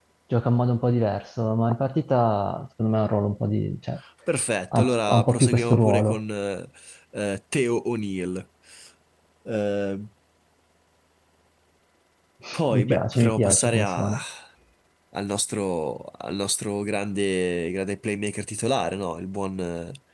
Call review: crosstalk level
present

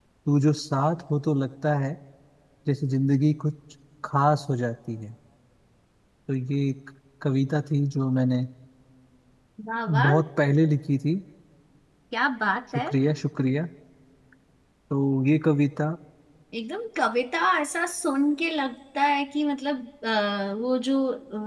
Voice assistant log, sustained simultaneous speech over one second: none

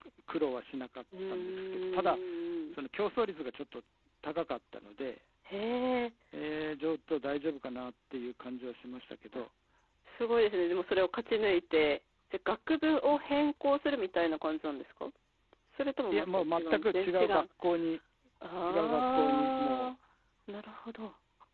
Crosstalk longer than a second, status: present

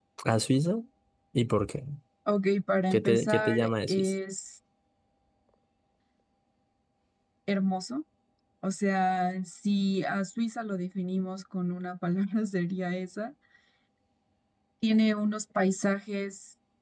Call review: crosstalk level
present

